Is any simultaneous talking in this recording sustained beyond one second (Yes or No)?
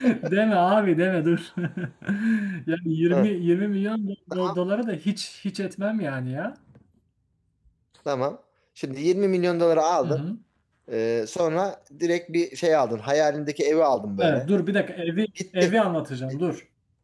No